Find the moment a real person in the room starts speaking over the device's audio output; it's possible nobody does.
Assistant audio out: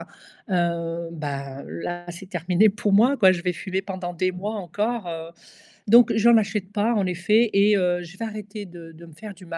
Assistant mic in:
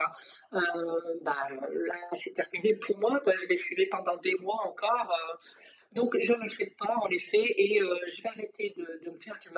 none

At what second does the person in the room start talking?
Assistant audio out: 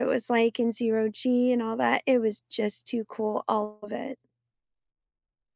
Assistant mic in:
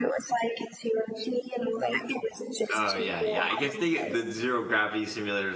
2.7 s

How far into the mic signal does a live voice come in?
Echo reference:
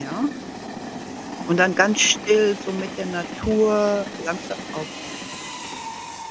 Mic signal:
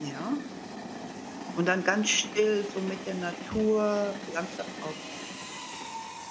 none

